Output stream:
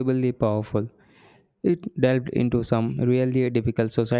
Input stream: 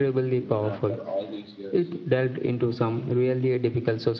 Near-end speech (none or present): present